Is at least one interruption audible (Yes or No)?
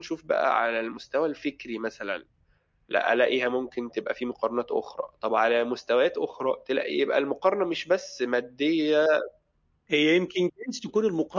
No